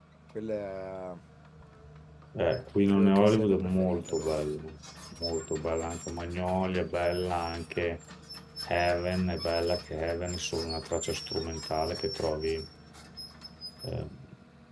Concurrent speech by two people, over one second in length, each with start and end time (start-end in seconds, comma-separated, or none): 2.9-4.4